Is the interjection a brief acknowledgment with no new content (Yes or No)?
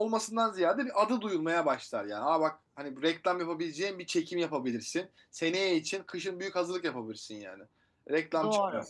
Yes